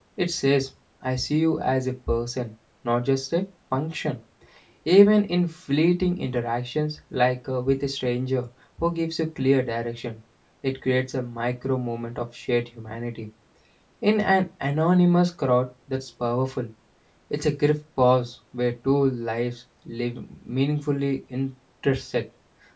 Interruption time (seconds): none

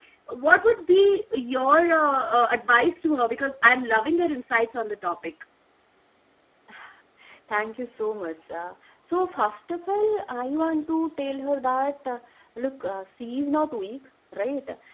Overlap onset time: none

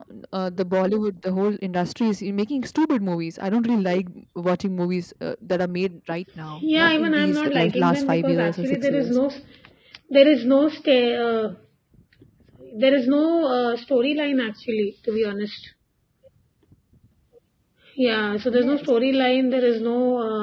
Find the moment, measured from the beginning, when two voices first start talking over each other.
6.6 s

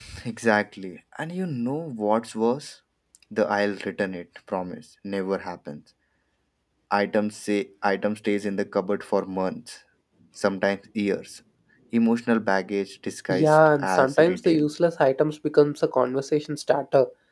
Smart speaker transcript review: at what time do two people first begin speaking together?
13.3 s

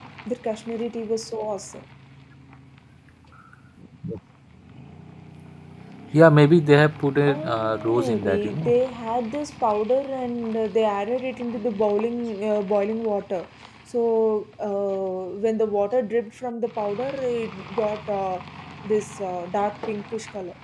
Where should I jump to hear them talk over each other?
7.2 s

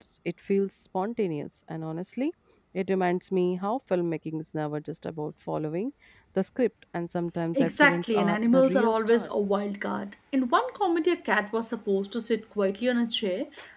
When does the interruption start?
7.5 s

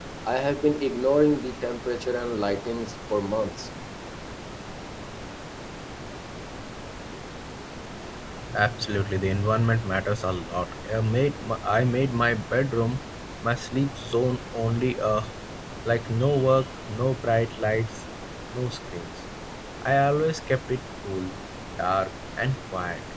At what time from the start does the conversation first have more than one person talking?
none

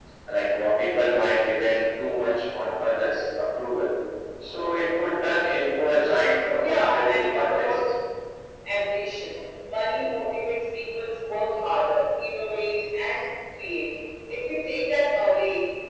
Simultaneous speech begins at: 6.6 s

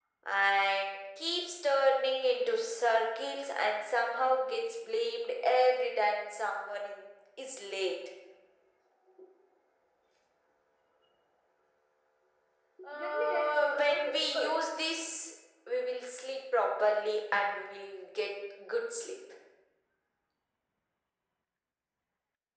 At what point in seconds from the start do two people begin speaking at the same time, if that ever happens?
12.9 s

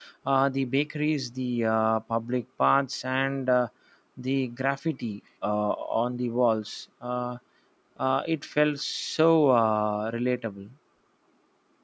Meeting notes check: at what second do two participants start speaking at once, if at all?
none

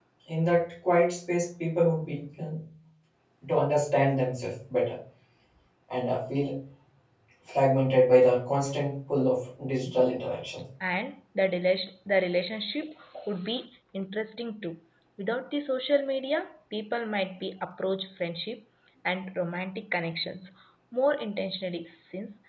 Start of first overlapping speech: none

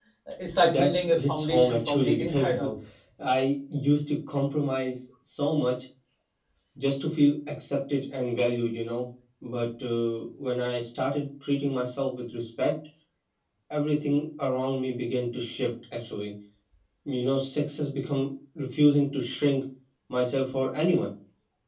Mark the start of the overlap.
0.6 s

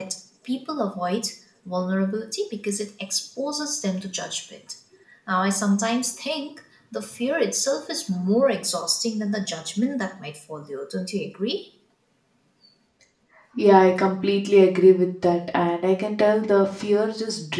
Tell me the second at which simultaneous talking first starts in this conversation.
none

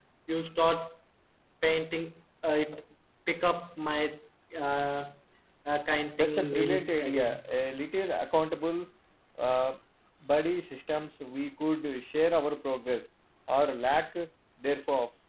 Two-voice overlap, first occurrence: 6.2 s

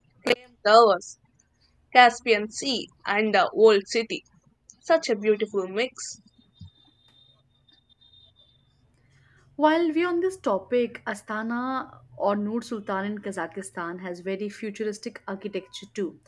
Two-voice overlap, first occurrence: none

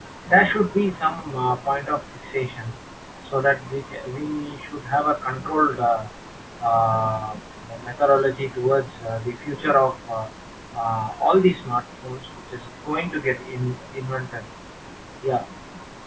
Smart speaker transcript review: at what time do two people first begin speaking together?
none

